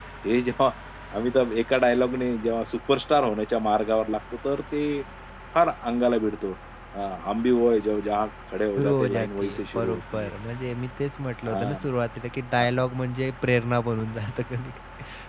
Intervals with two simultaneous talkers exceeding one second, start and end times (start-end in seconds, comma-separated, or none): 8.8-10.3